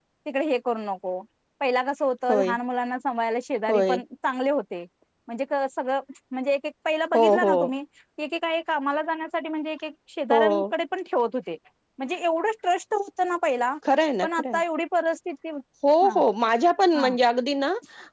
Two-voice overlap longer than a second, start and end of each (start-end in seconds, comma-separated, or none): none